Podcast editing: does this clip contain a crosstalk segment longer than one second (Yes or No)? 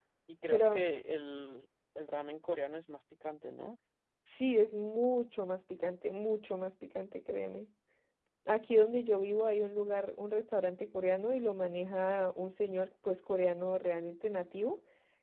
No